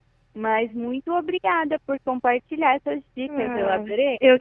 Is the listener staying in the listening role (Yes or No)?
No